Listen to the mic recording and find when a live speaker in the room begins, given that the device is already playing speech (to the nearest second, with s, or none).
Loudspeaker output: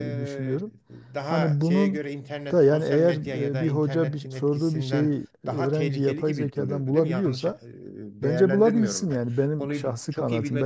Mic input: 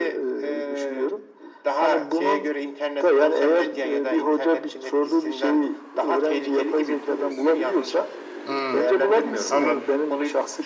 8 s